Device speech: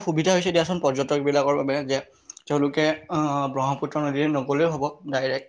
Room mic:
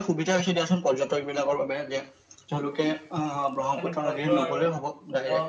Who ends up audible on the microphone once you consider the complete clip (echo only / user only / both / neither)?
both